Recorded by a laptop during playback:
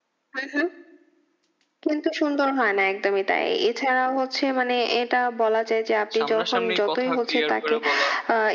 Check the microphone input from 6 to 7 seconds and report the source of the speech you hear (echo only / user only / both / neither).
both